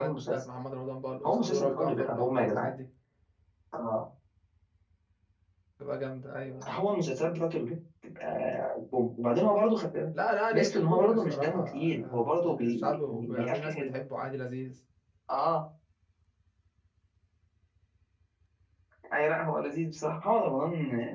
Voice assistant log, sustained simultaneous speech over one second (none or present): present